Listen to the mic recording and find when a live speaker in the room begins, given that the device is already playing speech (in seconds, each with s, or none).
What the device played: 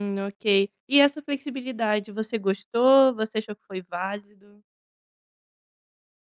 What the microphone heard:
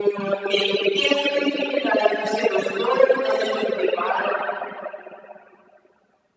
none